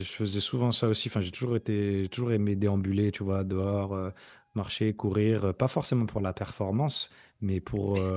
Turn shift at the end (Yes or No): No